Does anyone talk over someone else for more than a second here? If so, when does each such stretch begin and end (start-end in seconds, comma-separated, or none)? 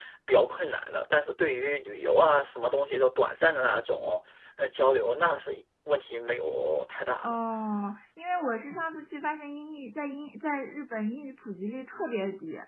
none